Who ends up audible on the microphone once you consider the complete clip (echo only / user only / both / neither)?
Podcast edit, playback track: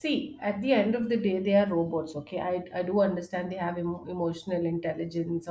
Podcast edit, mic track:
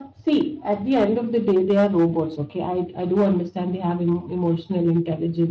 echo only